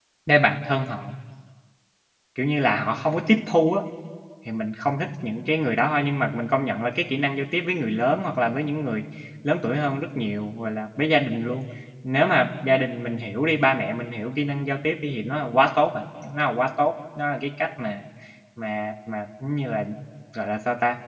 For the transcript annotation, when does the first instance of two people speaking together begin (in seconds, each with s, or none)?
none